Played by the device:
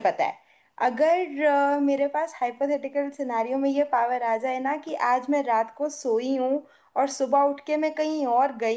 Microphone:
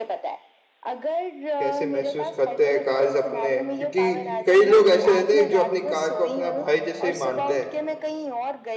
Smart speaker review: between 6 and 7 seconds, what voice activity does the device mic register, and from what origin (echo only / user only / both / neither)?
both